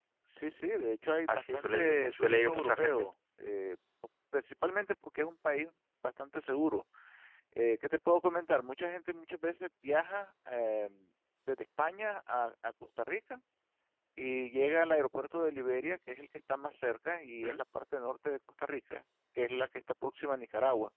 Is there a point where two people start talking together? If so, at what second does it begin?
1.3 s

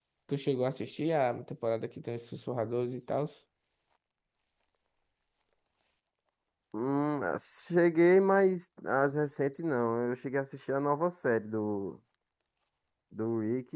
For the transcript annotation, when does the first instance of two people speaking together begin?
none

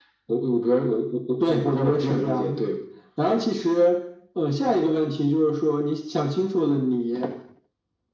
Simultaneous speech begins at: 1.4 s

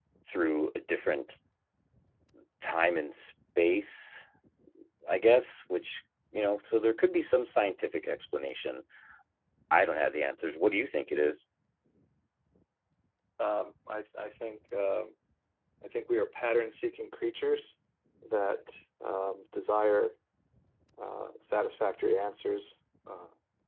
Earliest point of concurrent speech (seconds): none

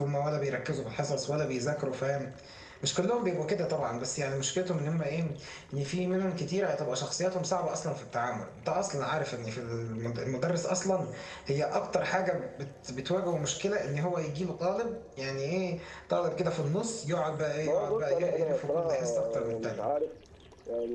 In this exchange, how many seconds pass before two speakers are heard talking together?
17.6 s

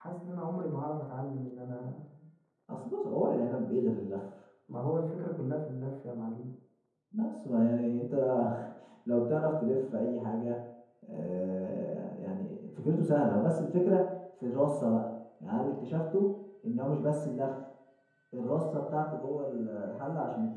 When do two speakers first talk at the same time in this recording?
none

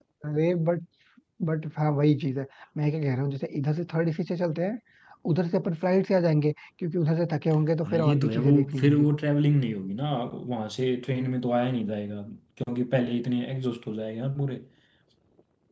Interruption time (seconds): 7.8 s

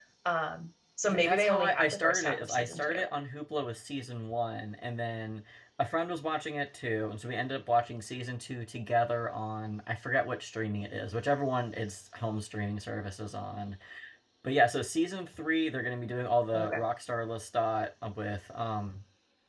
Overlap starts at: 1.1 s

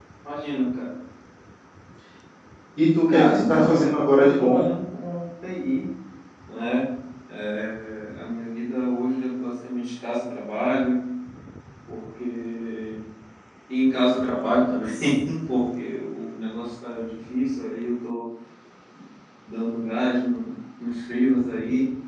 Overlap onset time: 3.1 s

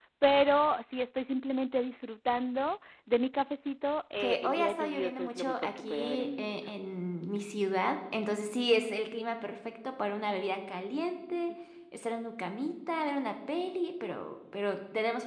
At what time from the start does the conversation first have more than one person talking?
4.2 s

